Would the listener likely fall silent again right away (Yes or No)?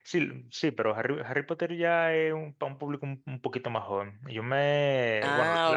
Yes